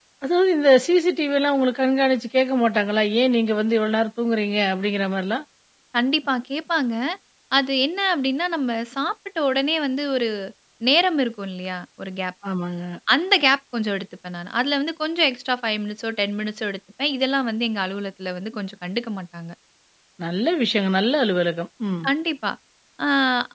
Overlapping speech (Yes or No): No